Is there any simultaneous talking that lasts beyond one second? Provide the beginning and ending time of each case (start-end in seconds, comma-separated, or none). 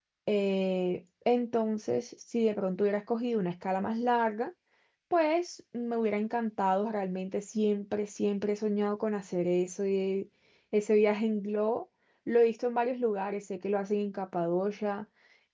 none